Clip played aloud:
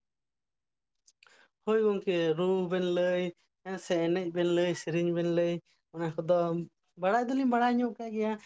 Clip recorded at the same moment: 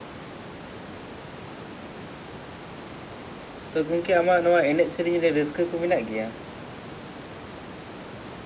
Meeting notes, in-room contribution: present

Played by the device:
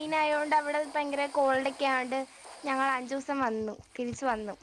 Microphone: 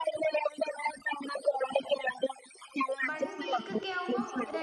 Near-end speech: present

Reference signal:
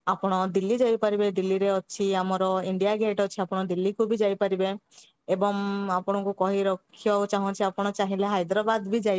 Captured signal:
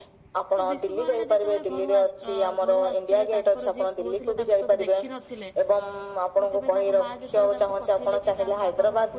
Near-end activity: present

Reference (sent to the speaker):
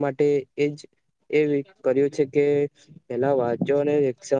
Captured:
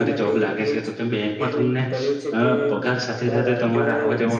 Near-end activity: present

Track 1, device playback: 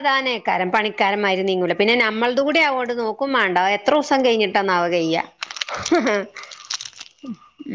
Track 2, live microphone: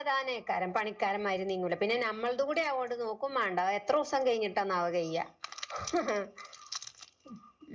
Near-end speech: none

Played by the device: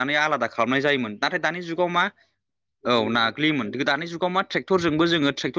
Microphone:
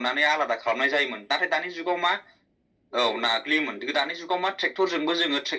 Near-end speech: none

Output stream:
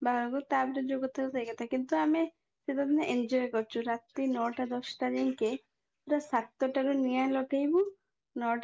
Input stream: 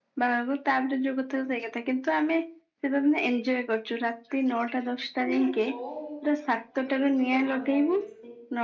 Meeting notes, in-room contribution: present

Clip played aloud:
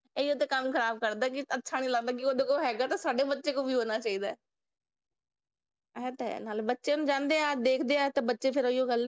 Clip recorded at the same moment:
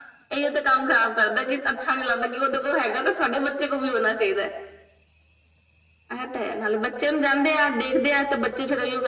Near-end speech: none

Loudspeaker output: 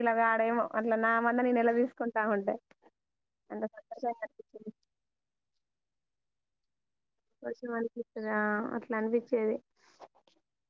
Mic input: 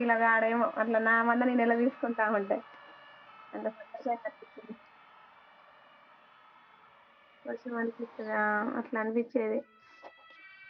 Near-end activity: none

